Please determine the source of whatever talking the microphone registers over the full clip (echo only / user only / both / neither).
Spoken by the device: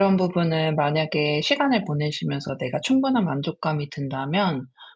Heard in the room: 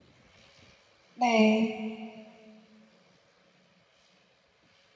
user only